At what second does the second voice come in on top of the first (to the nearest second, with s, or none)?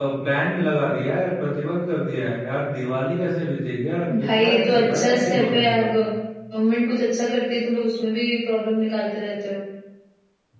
4 s